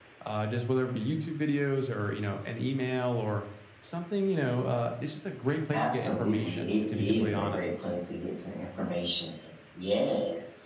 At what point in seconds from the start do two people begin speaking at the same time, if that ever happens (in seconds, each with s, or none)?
5.7 s